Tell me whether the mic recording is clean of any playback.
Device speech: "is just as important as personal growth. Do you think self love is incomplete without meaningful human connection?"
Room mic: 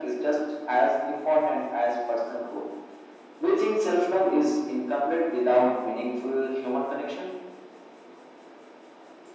No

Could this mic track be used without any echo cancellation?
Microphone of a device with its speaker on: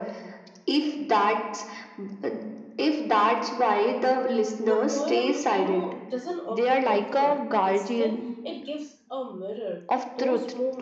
No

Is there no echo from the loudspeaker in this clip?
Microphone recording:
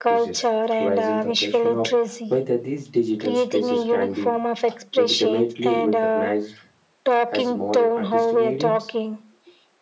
No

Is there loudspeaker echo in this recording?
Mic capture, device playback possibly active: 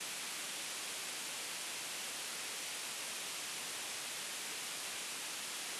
No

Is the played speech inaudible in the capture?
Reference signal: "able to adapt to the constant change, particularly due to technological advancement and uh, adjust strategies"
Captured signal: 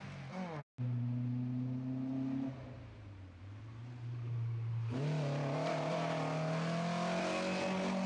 Yes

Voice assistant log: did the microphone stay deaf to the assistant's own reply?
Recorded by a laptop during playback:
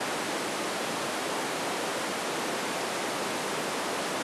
Yes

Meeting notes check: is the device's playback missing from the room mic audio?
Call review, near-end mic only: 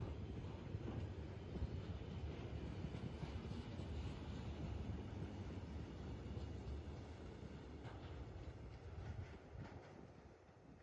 Yes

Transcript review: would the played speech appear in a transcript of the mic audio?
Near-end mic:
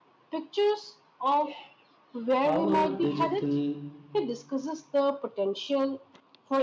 Yes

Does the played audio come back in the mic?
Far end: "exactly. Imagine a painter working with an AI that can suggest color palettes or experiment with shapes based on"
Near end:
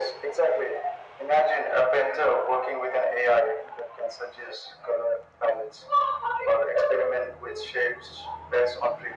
Yes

